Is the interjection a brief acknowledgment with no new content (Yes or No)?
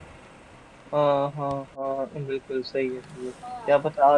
Yes